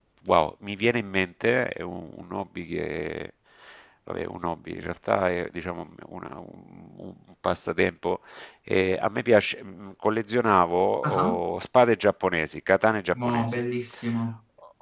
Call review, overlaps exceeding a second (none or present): none